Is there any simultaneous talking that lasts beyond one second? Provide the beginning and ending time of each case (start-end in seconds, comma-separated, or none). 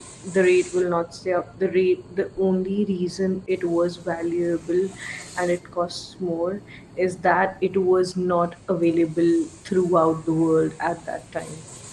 none